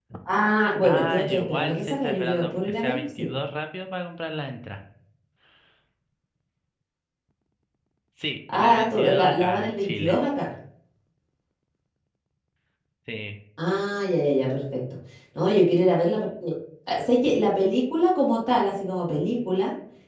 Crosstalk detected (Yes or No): Yes